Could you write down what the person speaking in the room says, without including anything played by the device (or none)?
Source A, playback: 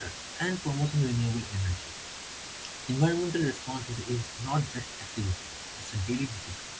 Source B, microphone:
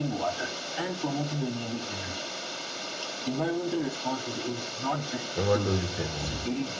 So, what do you say more?